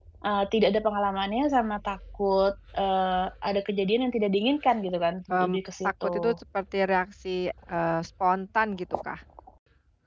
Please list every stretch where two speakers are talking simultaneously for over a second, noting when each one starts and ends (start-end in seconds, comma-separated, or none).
none